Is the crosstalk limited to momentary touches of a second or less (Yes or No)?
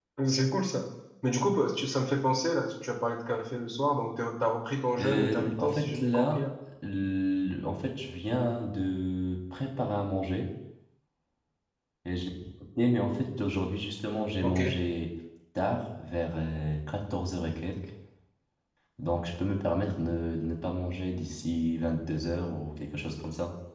No